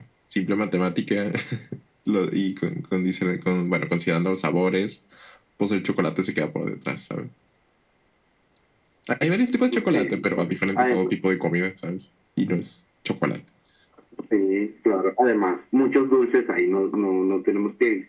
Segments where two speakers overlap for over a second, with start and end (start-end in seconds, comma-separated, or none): 9.9-11.1